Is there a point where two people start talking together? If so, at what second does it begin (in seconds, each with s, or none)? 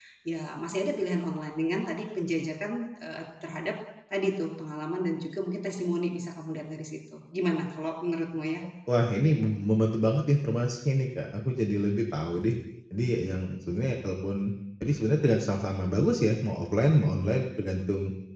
none